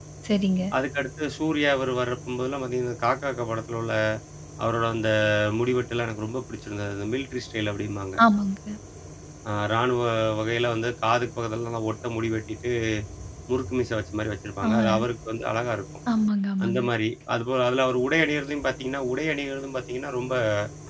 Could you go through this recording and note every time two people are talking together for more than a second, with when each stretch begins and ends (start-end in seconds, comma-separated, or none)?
none